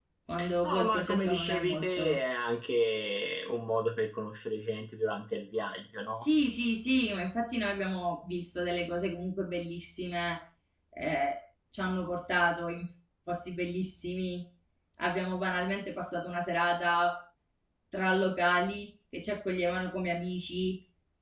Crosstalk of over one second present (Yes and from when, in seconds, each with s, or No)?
Yes, from 0.6 s